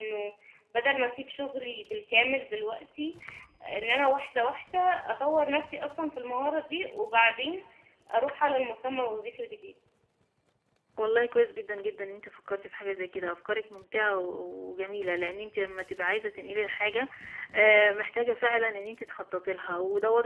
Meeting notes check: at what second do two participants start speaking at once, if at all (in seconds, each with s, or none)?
none